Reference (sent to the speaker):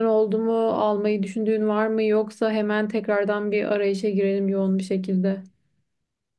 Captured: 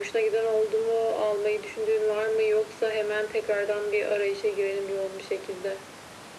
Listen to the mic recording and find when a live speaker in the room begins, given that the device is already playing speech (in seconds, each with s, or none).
none